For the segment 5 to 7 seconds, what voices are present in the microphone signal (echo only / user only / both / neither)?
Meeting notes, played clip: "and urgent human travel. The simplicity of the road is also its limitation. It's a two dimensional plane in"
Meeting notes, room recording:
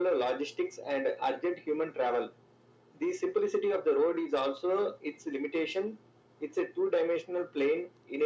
echo only